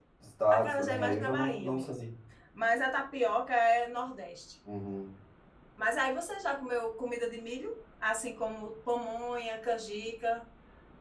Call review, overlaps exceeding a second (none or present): present